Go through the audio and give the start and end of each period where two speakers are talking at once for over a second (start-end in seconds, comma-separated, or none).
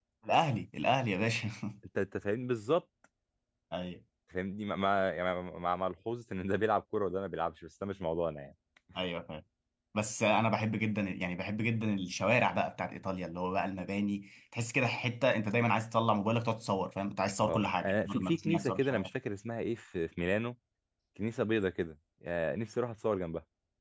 17.4-19.1